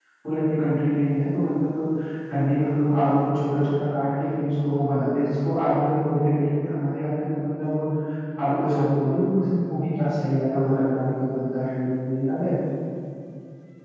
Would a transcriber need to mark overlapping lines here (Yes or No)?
No